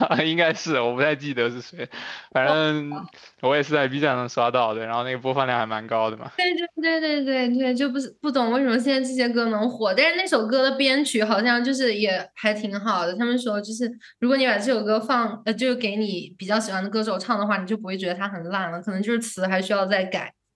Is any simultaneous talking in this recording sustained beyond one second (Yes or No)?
No